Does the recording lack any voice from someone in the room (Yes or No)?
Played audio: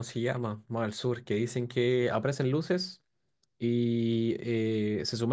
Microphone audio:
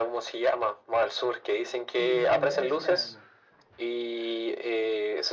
No